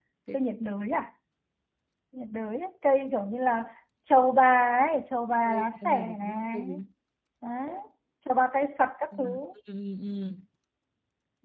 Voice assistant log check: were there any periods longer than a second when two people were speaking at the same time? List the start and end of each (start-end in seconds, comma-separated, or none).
5.5-6.7